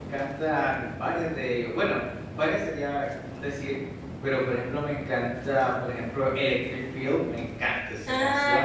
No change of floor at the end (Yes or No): No